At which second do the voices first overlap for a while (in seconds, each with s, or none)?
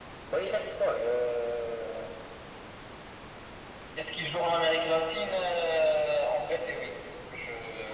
none